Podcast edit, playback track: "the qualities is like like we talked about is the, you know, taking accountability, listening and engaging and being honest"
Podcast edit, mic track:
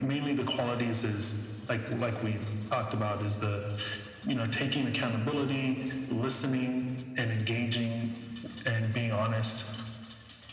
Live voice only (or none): none